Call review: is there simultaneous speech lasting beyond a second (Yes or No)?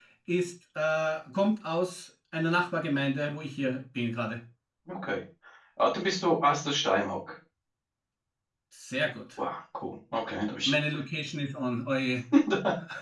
No